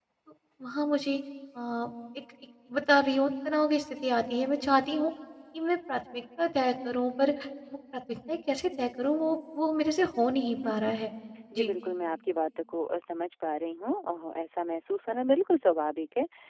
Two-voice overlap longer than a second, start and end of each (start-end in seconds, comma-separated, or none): none